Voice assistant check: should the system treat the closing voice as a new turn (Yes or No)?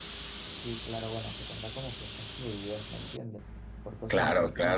No